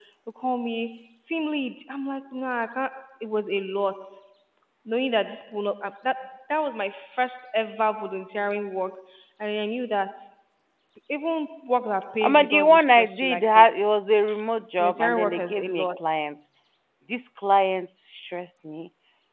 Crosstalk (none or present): present